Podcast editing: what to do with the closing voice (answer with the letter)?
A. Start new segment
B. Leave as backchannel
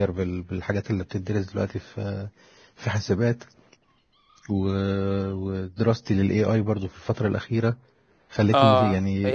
A